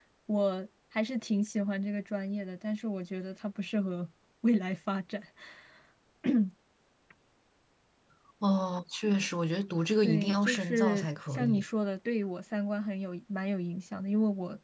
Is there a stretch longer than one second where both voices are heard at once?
Yes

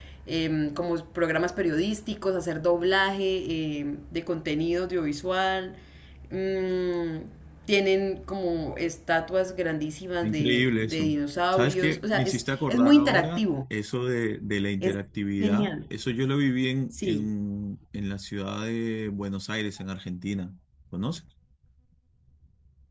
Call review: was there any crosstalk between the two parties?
Yes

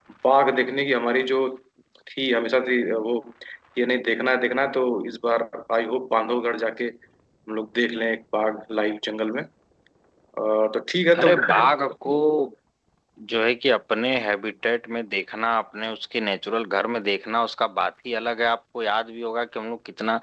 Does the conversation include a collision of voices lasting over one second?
No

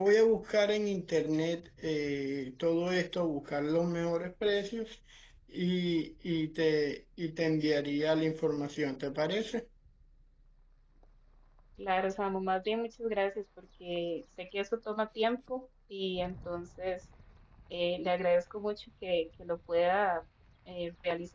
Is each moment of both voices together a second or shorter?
Yes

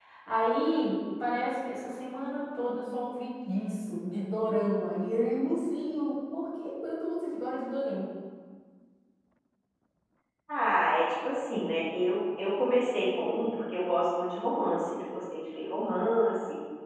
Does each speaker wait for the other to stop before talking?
Yes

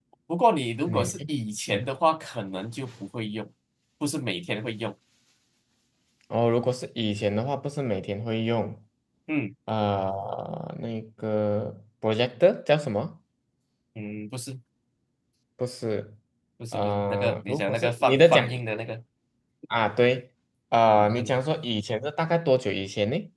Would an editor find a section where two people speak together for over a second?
Yes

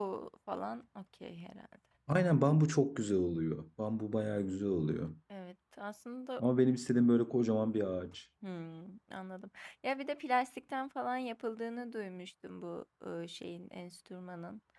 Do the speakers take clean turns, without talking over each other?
Yes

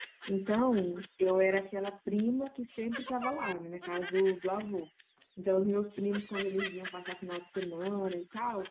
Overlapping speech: No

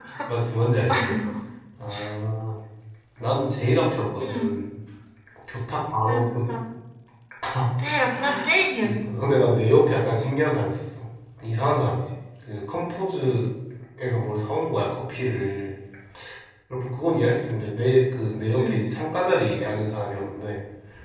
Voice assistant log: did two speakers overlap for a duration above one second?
No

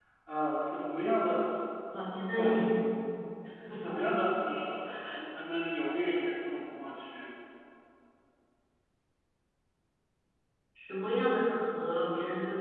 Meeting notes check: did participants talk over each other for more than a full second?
No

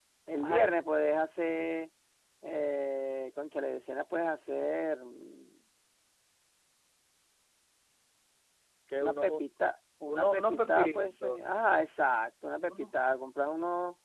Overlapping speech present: Yes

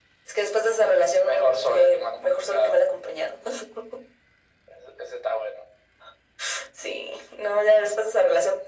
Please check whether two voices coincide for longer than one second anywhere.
Yes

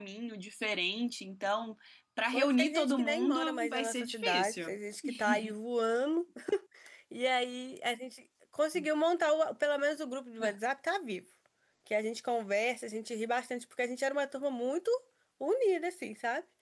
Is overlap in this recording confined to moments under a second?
No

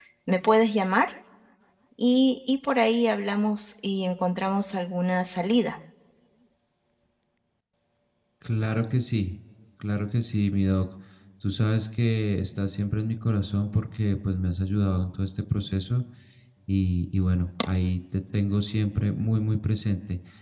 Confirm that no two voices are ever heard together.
Yes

